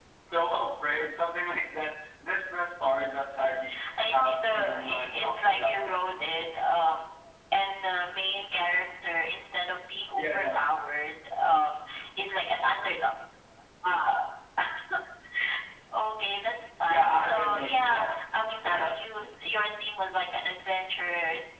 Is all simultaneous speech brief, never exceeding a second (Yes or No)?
No